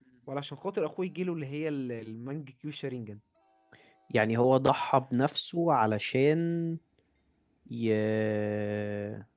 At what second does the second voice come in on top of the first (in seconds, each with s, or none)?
none